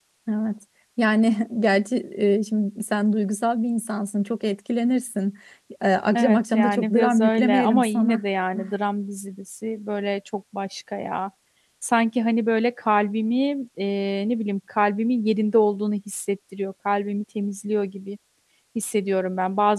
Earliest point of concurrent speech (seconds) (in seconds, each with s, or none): 6.2 s